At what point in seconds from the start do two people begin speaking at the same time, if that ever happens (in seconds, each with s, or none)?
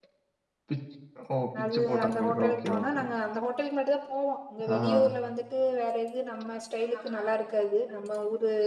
1.7 s